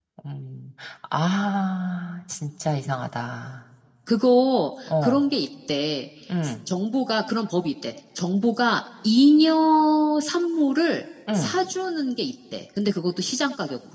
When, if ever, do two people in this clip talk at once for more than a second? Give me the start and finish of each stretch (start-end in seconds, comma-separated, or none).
none